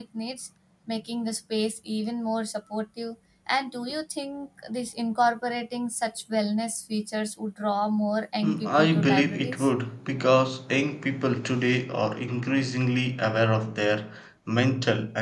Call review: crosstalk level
present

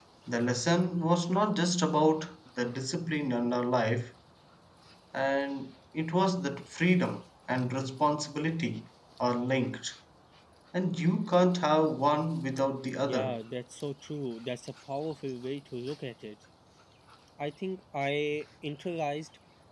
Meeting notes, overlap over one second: none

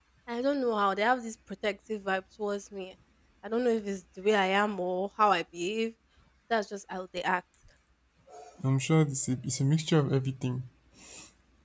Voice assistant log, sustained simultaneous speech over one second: none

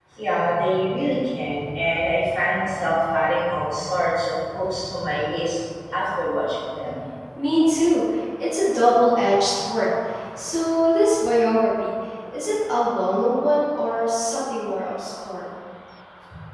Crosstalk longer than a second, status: none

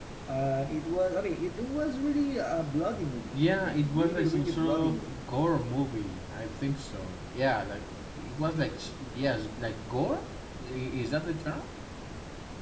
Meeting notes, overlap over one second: present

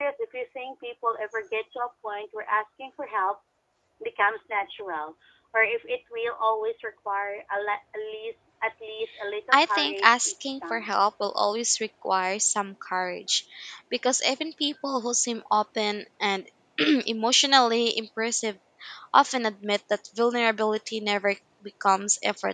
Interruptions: present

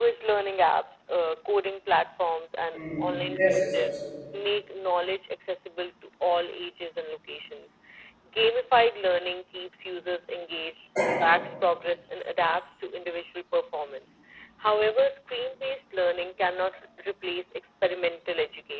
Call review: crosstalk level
present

